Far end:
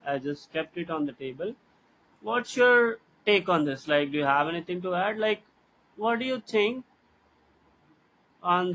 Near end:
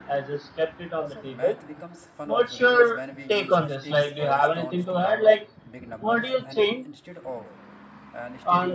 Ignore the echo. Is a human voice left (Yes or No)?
Yes